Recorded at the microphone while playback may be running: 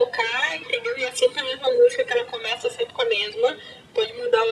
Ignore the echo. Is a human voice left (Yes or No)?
No